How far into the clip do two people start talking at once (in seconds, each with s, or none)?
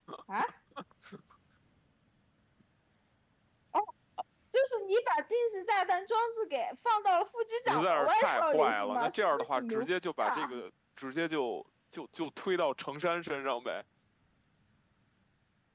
7.7 s